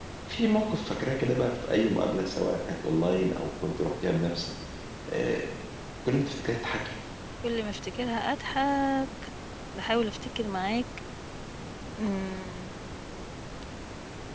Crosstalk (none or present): none